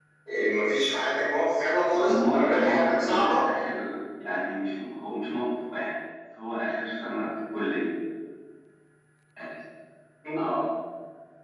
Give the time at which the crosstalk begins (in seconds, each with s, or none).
1.9 s